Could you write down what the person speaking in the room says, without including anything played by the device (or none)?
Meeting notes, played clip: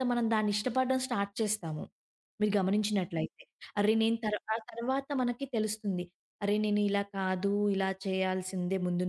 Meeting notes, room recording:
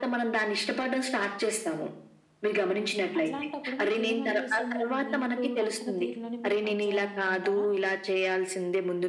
సో, అట్లాంటప్పుడు మీకేమనిపిస్తుందండి? మీకు నచ్చిన తీరులోనే మీరు పని చేయాలనుకుంటారా?